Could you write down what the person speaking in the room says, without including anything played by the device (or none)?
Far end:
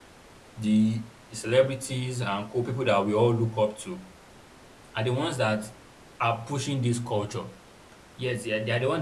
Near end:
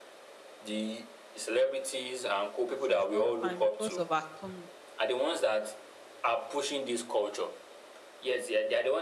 she's not fine because of her tummy